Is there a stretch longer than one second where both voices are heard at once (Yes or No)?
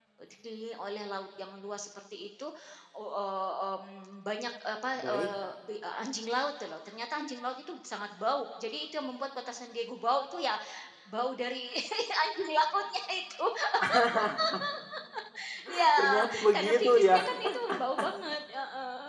Yes